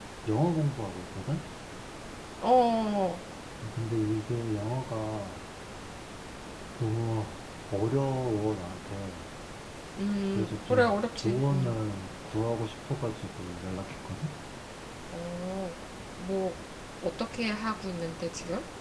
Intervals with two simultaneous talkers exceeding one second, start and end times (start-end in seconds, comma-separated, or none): 10.3-11.7